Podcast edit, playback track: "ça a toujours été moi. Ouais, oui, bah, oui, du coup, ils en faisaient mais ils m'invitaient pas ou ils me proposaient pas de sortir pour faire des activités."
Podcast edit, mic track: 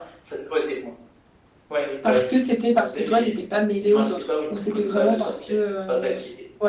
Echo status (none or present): present